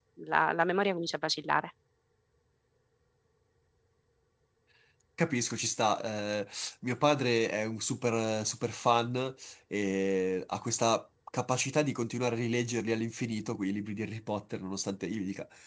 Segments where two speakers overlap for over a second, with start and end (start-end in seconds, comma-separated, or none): none